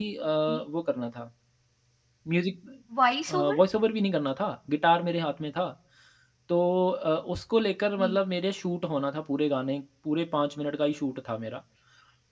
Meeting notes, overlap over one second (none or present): none